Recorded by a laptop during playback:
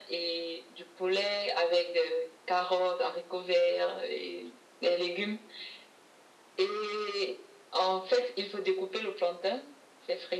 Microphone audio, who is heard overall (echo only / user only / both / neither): echo only